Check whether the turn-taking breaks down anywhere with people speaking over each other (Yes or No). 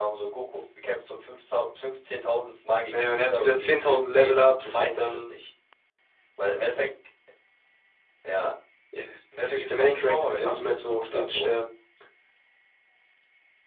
Yes